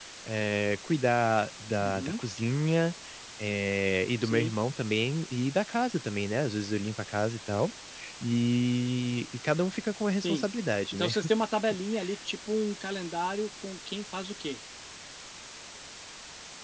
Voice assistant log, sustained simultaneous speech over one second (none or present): none